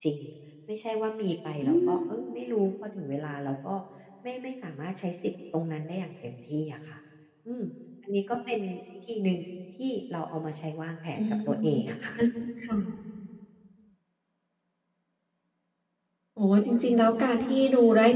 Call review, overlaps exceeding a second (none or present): none